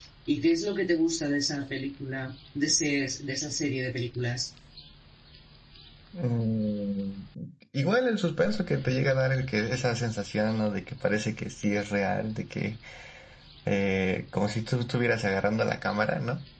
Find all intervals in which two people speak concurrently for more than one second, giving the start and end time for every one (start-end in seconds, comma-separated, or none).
none